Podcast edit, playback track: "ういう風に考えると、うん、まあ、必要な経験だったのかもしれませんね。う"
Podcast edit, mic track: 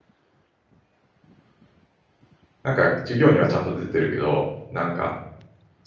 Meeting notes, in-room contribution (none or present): present